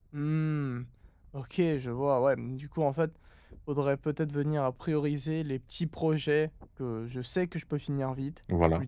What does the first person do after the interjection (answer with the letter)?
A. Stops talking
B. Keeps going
B